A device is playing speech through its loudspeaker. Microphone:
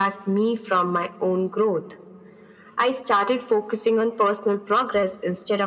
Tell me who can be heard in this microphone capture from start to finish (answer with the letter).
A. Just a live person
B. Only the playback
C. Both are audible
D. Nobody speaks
B